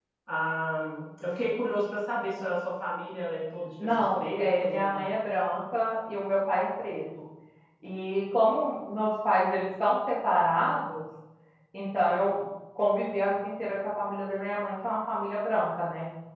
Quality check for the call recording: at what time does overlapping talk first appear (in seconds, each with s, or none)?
3.8 s